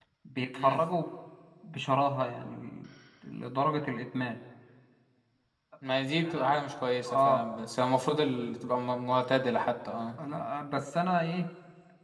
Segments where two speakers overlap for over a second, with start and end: none

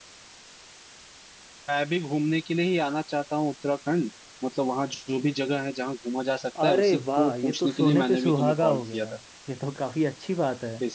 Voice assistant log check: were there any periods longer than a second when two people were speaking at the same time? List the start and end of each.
6.6-9.1

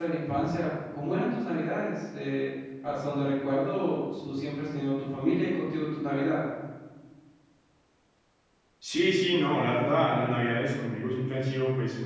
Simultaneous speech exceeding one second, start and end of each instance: none

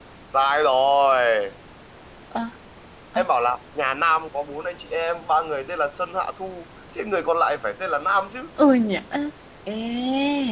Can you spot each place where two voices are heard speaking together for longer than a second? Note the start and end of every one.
none

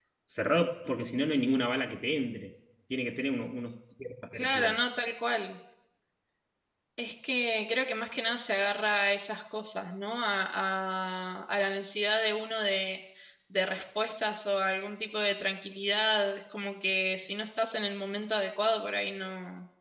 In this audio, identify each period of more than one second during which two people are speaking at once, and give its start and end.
none

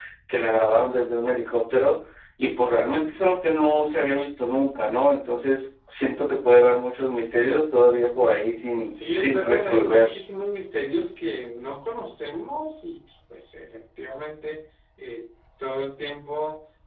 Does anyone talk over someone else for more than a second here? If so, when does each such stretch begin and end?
8.8-10.1

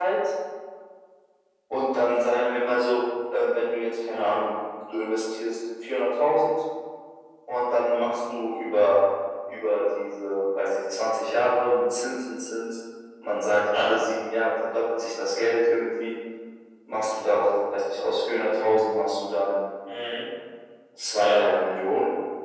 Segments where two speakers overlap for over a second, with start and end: none

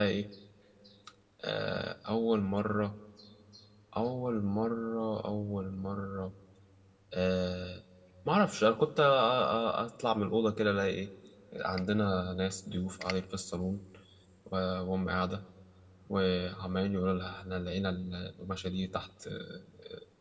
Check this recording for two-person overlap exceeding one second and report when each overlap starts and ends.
none

